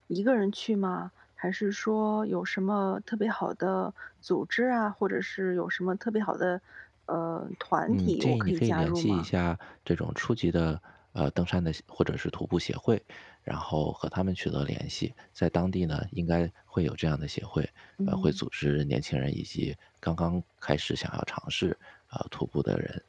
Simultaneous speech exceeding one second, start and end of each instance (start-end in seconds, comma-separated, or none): 7.9-9.3